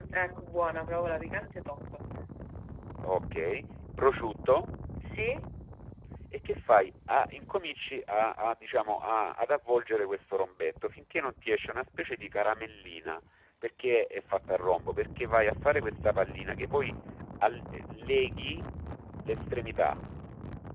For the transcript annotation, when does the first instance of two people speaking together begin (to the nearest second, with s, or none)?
none